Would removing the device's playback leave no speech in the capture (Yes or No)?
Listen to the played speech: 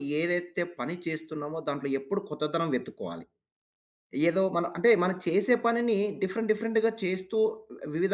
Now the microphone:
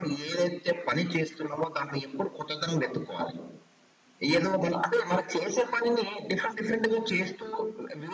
Yes